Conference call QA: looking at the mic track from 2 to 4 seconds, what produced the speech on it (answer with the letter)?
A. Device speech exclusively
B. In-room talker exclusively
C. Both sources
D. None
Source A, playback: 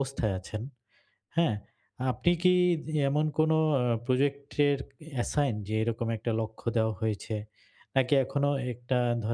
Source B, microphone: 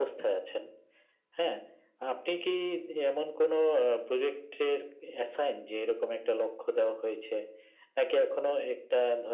A